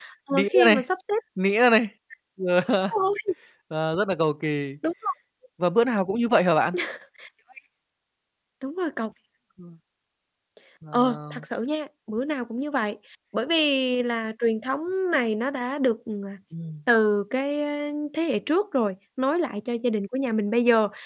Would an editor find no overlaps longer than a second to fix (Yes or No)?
Yes